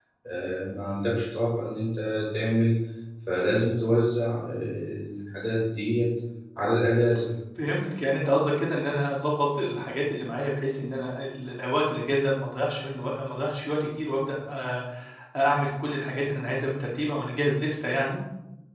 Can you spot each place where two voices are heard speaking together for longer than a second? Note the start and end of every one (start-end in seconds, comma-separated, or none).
none